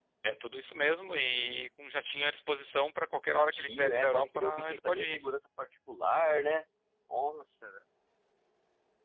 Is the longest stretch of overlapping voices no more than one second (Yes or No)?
No